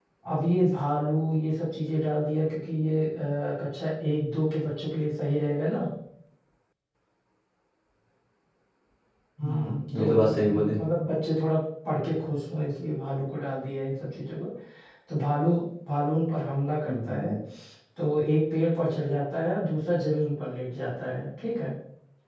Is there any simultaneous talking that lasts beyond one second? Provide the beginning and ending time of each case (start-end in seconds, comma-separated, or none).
9.4-10.7